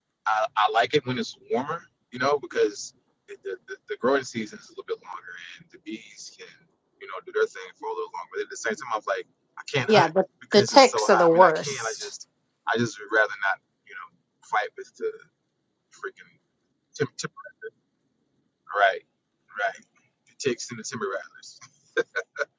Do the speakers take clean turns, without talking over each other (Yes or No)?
No